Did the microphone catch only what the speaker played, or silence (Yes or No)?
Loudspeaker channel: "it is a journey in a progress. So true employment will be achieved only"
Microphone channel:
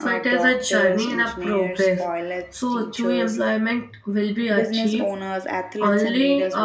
No